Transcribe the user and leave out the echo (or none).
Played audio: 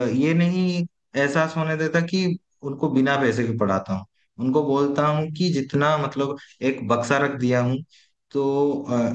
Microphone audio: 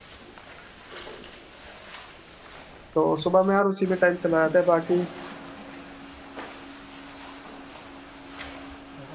तो सुबह में यार उसी में टाइम चला जाता है बाकी